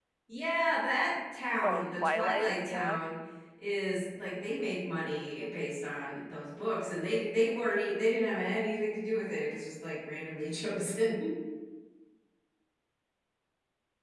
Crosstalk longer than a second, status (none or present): present